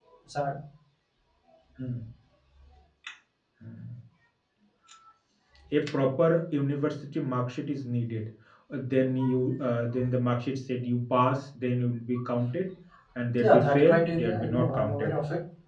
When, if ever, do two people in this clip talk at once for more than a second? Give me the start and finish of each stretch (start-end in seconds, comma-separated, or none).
13.4-15.1